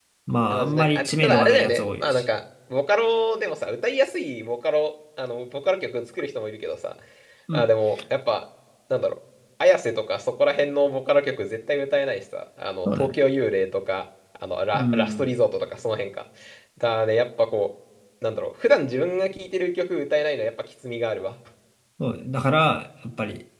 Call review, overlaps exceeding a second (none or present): present